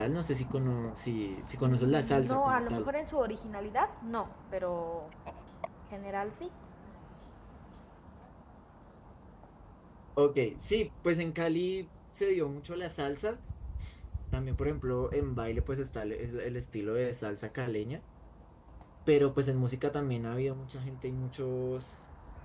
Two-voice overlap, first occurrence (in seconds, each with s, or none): 1.6 s